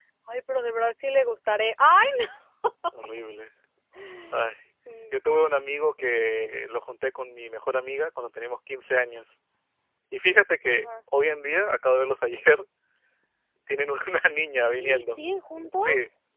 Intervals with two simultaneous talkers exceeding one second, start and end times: none

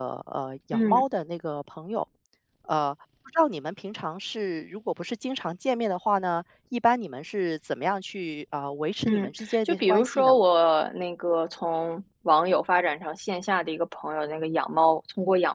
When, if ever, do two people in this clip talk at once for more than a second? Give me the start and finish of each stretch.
9.1-10.4

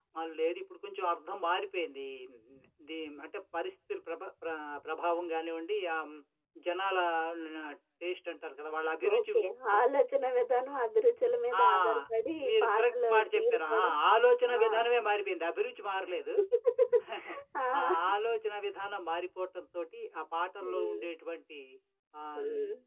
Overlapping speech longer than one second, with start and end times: 12.5-13.9

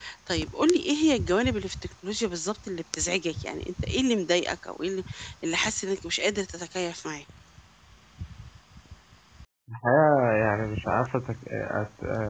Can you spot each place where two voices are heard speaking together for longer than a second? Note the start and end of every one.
none

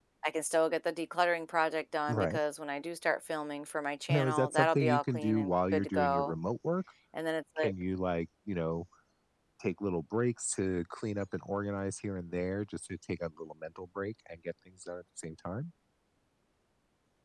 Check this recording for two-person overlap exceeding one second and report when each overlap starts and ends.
4.1-6.3

